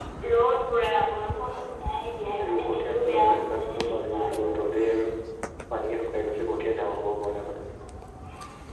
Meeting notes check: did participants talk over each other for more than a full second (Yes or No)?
Yes